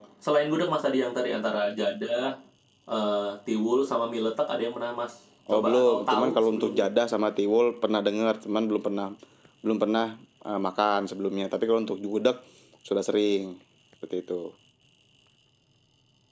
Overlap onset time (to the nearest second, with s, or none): 5 s